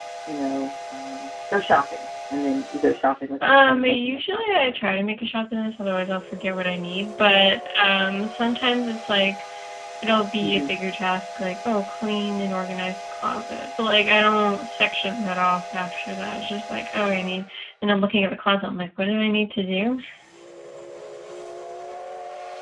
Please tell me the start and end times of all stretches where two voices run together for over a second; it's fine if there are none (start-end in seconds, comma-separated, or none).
3.4-4.9